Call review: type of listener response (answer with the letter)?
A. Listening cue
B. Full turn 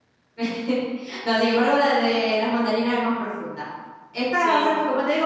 A